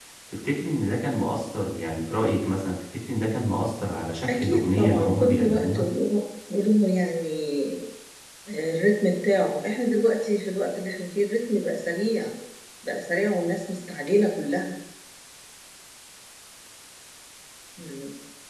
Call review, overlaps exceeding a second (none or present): present